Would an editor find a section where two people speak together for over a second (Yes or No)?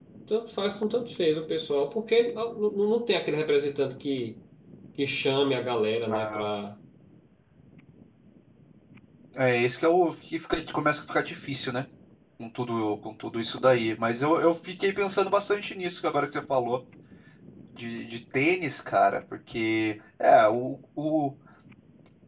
No